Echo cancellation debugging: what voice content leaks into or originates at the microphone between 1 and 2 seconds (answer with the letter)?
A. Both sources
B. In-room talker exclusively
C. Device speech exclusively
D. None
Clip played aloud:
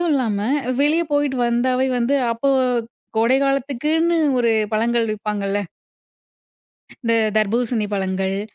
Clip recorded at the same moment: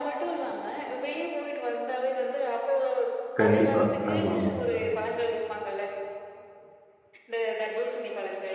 C